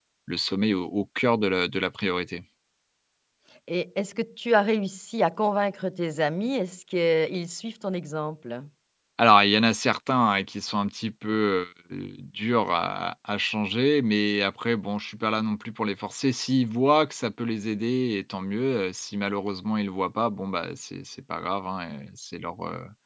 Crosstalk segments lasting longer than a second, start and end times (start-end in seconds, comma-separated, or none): none